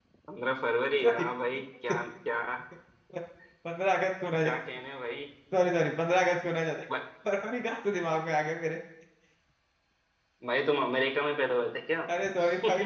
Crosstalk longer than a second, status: none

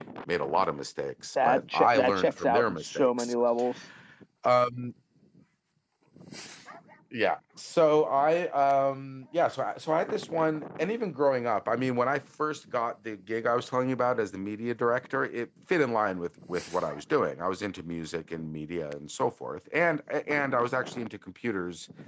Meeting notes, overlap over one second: present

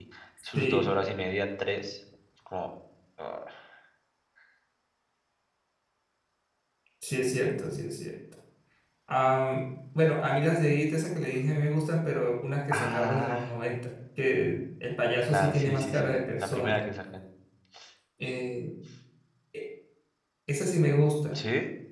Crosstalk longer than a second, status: present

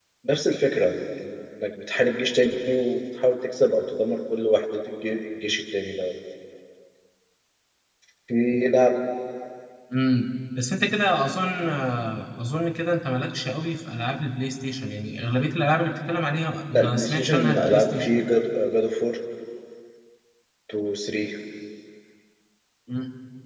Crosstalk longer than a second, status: present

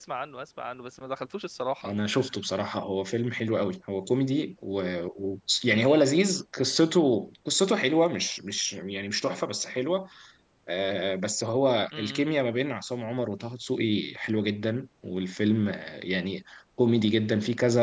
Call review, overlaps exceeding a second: none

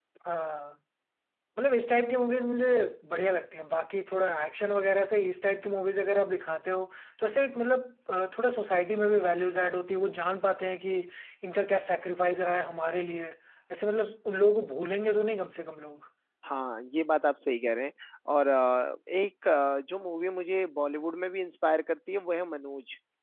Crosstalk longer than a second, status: none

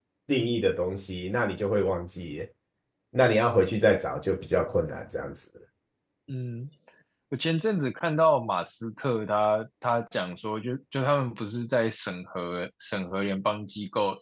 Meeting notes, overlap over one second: none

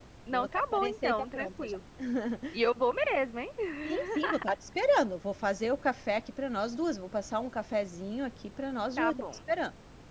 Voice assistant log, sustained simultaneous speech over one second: present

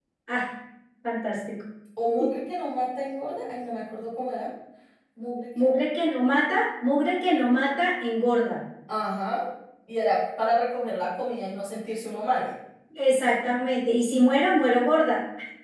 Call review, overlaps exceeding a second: none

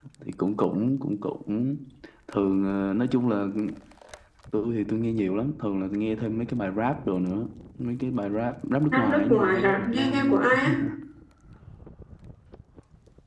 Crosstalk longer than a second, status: present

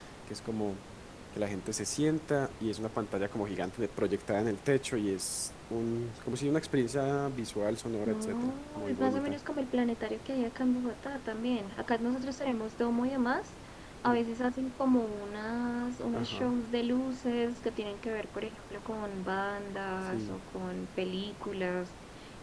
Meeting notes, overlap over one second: present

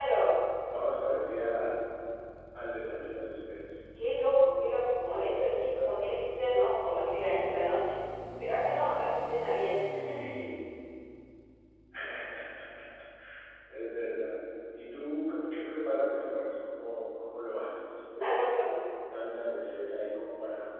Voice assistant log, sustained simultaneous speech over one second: none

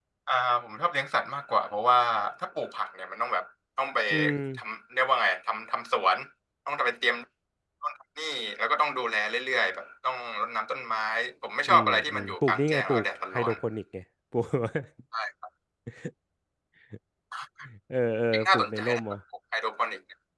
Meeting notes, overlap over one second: present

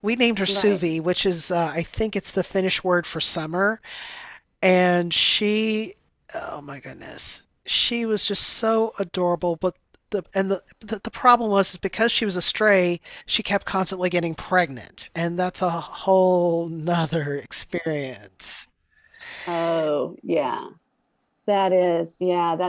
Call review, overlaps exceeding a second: none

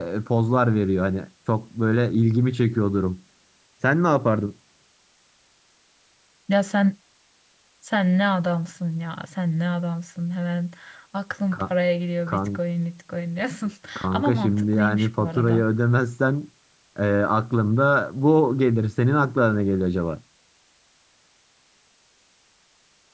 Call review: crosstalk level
present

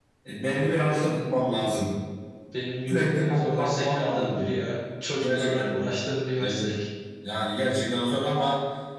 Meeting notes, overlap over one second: present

